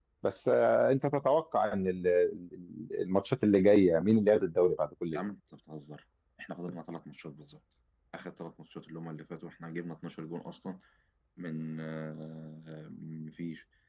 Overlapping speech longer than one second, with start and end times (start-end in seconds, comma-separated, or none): none